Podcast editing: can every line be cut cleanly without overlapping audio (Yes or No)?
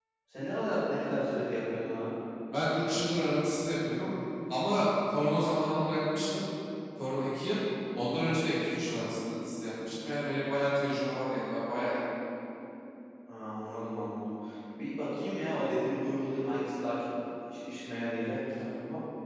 Yes